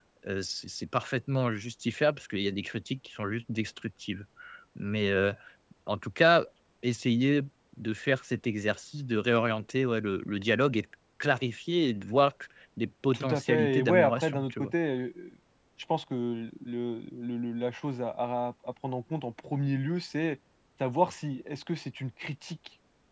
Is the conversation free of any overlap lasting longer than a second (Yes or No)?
No